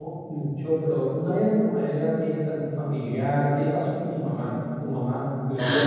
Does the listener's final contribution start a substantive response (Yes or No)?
Yes